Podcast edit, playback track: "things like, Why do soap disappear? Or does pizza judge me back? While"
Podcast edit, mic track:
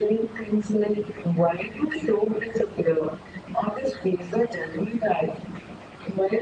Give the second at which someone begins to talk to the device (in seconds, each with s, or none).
none